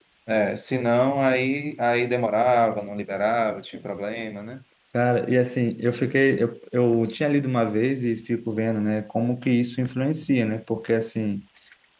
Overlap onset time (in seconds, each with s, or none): none